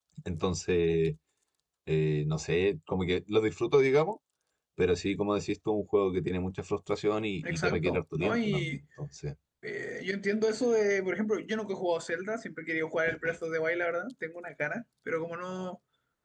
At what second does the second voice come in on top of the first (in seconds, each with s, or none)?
7.4 s